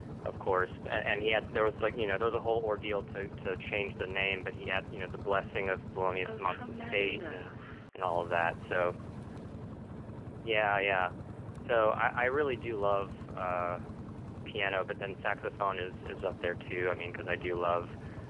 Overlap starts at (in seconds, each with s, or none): 6.2 s